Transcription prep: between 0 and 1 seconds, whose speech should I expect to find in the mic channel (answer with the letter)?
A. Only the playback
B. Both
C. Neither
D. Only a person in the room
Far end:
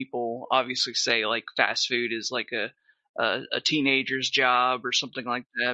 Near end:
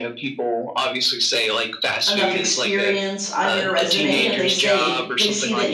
A